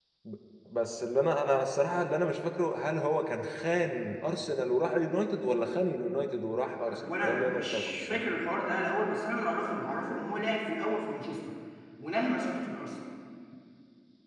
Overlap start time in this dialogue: 7 s

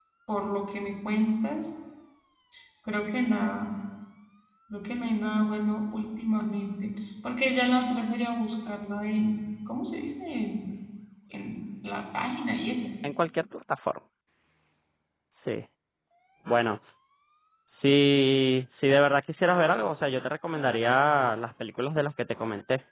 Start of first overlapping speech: none

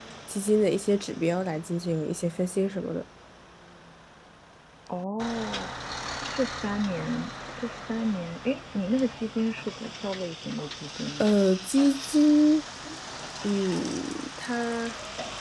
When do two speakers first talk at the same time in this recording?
none

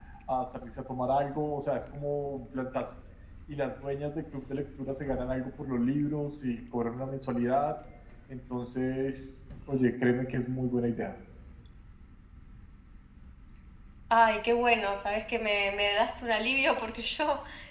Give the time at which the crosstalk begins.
none

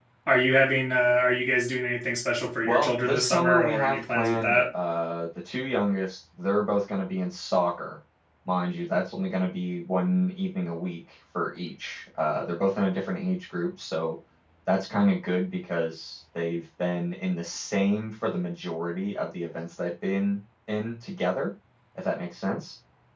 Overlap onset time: 3 s

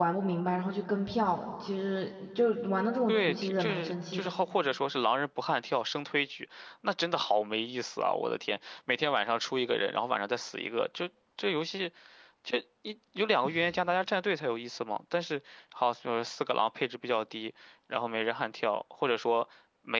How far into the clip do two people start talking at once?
3 s

